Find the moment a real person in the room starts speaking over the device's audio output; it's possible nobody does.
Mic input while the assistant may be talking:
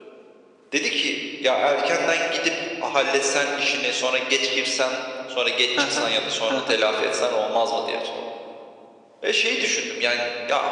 5.8 s

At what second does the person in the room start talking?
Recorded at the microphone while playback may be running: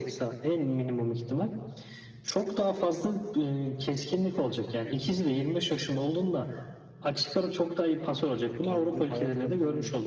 8.6 s

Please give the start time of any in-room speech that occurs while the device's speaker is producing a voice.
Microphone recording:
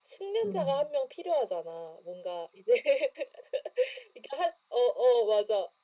0.4 s

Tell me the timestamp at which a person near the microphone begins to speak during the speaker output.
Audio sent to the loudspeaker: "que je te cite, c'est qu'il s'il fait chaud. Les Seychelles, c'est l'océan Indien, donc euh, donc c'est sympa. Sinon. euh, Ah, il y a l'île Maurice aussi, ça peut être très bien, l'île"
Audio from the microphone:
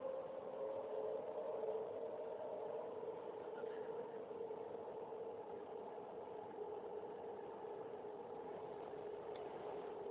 none

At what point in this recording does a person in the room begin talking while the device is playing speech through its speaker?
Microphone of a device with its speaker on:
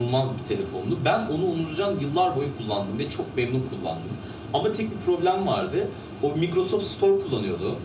none

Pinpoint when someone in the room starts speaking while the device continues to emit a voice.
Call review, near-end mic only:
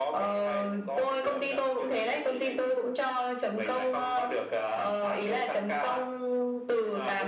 none

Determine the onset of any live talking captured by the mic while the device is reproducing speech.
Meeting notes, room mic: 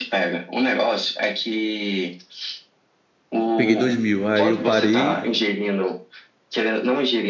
3.5 s

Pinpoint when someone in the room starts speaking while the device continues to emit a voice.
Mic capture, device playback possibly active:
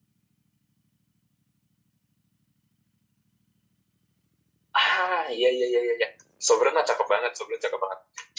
4.8 s

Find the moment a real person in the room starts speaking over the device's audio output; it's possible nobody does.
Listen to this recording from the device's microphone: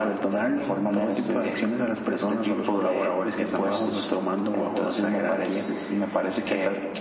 none

